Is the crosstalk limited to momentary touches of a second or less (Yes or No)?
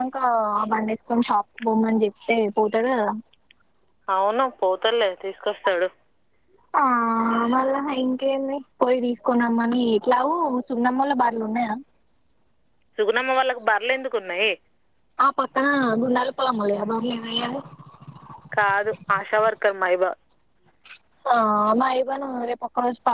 Yes